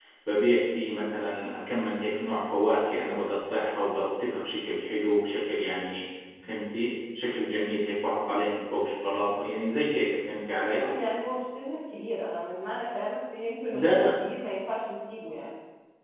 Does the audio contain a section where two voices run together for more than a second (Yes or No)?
No